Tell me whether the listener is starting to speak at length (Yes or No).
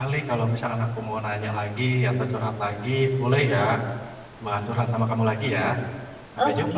Yes